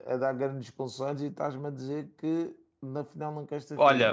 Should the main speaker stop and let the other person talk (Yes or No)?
Yes